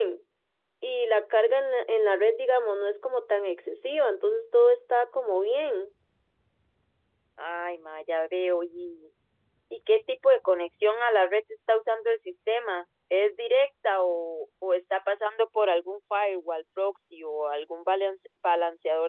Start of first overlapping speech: none

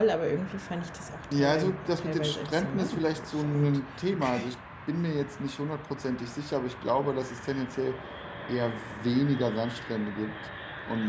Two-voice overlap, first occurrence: 1.3 s

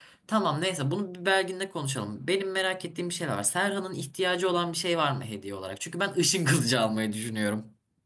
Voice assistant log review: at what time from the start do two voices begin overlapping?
none

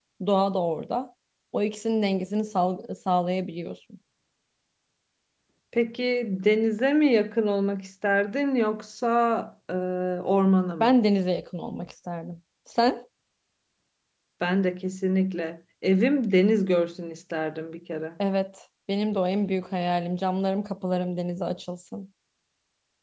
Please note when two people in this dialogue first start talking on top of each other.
none

